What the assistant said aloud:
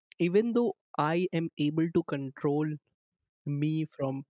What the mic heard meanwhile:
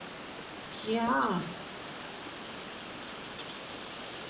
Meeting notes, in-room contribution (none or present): present